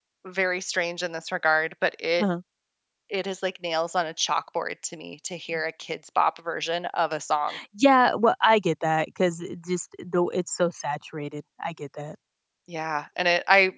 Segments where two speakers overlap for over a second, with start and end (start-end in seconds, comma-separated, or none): none